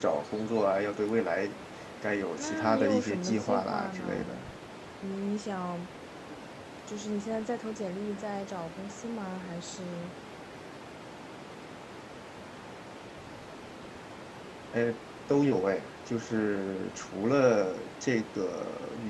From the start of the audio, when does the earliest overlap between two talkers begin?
2.4 s

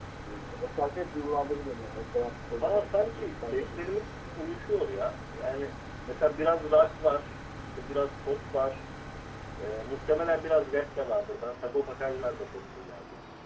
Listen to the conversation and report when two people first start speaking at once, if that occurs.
2.5 s

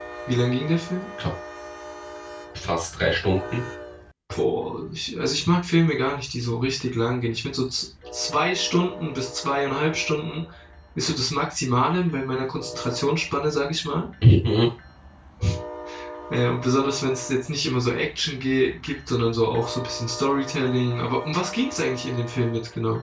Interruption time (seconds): none

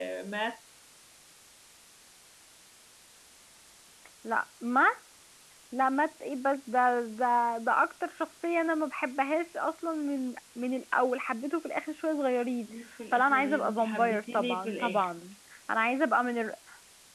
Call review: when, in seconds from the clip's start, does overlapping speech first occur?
13.1 s

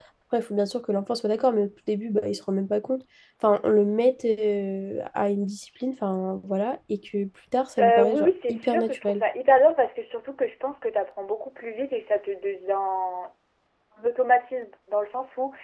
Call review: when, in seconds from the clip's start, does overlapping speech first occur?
7.8 s

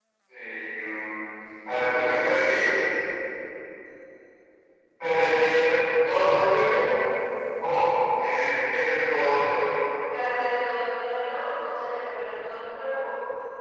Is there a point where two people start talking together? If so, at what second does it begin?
none

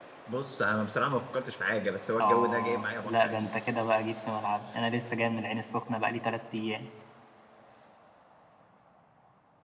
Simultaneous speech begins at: 2.2 s

